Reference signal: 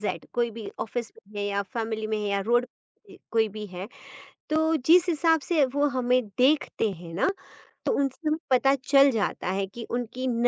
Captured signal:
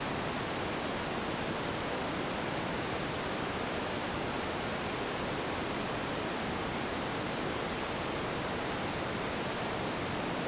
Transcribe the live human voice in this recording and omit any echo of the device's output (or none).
none